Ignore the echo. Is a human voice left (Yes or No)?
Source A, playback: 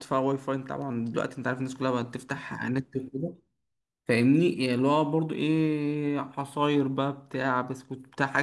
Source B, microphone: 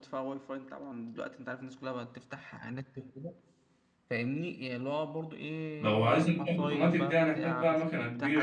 Yes